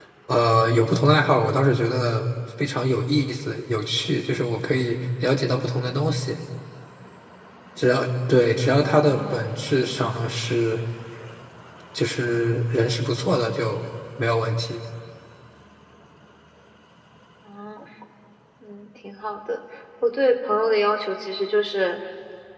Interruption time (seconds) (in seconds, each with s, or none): 8.8 s